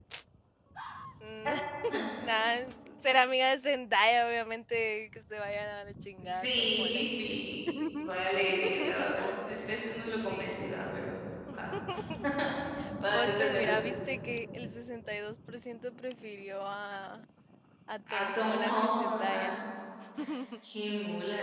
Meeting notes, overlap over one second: present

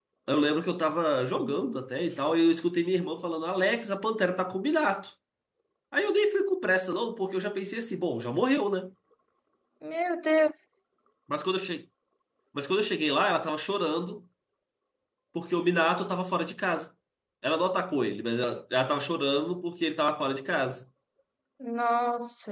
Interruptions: none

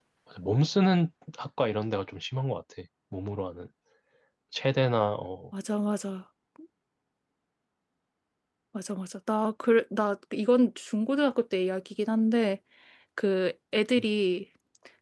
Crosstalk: none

